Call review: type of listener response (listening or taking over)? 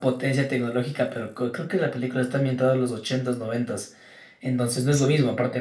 listening